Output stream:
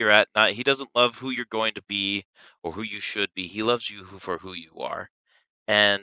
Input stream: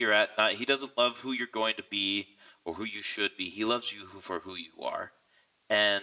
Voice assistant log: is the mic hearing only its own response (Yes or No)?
Yes